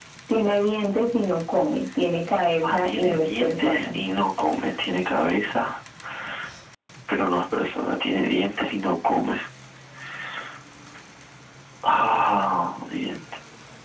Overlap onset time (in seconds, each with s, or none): 2.6 s